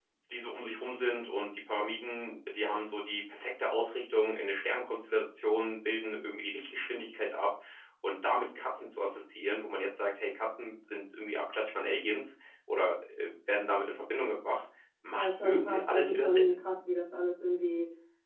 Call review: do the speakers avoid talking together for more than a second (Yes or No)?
No